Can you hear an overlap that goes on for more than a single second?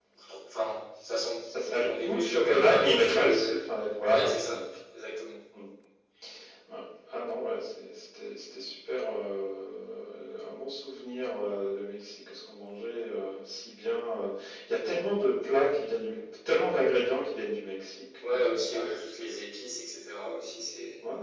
Yes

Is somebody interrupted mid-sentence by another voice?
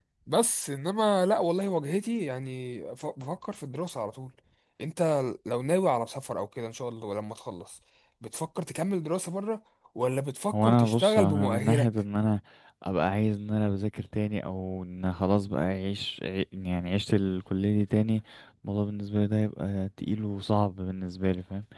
Yes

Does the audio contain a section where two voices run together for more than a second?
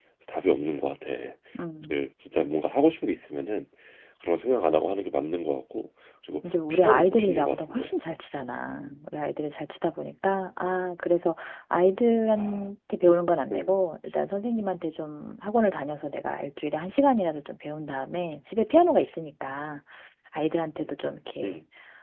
Yes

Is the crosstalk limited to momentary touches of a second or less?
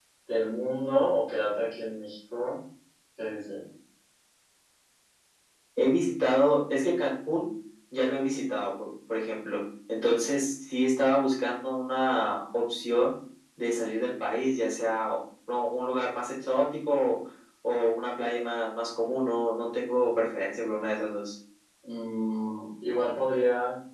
Yes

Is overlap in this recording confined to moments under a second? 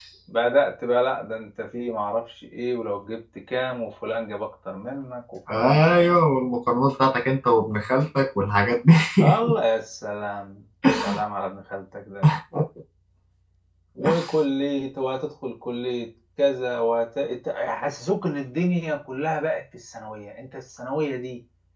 Yes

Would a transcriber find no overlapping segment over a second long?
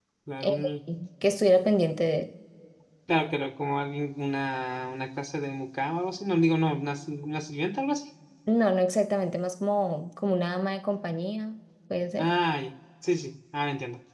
Yes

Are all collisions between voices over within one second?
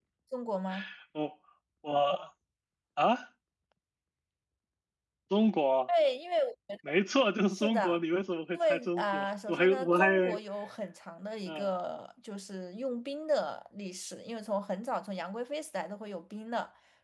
No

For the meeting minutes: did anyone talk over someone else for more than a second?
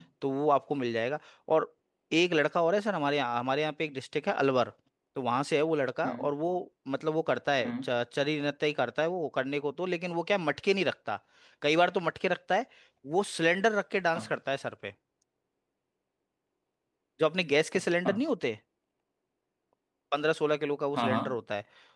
No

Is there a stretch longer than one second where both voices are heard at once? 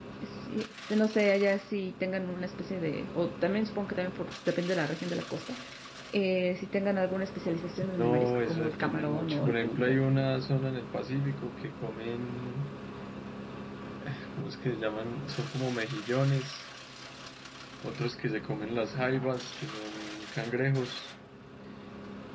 Yes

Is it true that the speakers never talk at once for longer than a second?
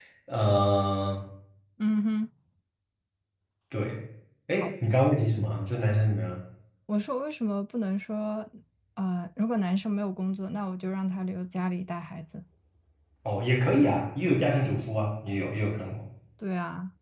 Yes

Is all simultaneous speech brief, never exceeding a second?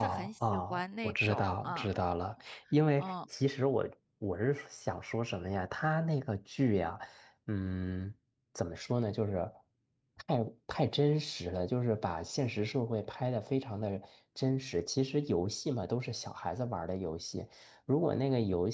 No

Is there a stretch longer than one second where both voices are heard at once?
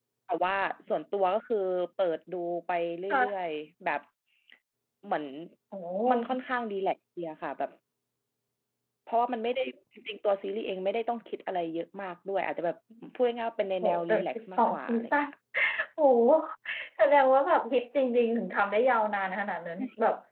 Yes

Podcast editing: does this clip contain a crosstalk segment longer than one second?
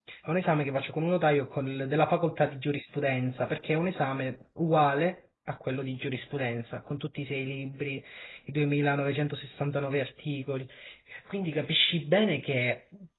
No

